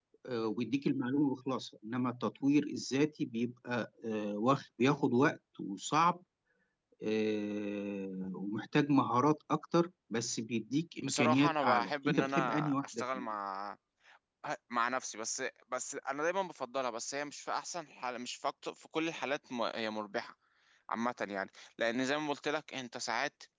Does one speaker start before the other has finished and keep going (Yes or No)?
Yes